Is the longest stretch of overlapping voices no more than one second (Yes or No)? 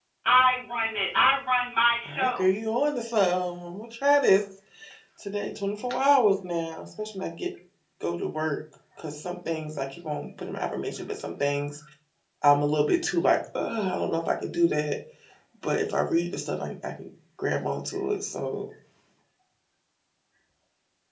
Yes